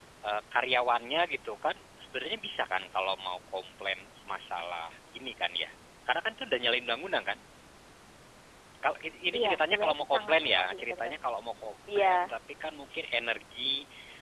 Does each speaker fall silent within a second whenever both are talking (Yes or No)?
No